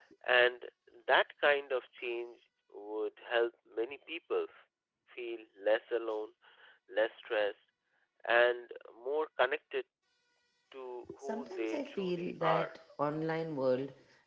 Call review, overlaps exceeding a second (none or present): present